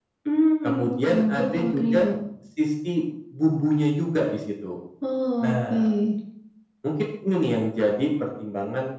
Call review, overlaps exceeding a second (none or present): present